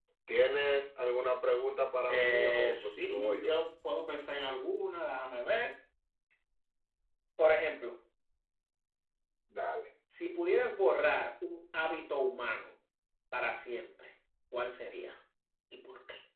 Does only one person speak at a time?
No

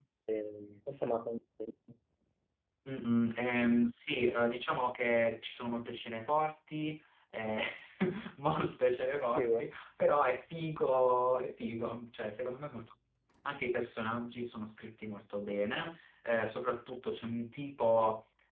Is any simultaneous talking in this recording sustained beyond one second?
No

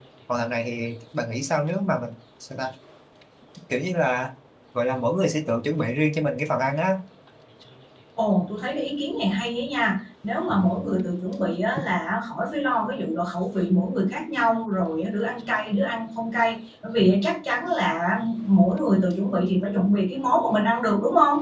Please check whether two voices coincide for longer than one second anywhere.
No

